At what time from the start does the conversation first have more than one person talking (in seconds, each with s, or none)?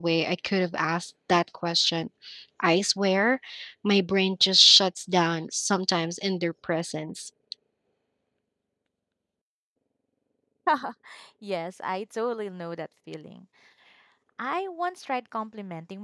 none